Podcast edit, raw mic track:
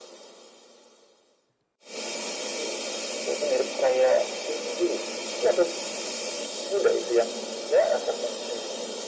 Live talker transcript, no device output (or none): none